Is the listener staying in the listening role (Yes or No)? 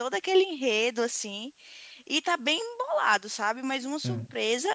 Yes